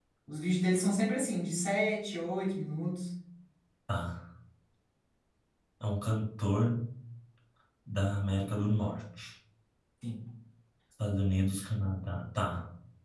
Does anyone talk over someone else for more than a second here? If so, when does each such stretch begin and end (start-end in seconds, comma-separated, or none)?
none